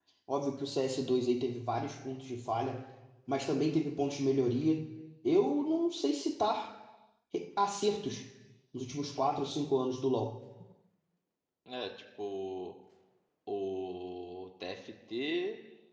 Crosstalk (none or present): none